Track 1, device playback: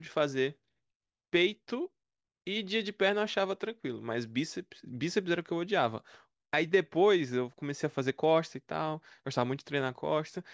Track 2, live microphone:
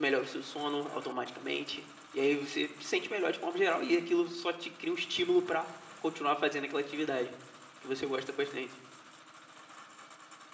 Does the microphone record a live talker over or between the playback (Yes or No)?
Yes